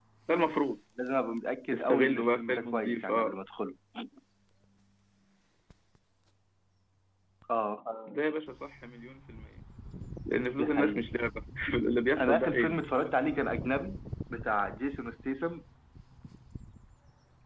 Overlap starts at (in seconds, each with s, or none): 1.7 s